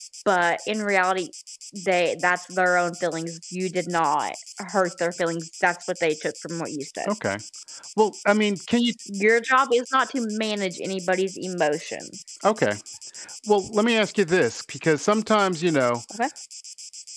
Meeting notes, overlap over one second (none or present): none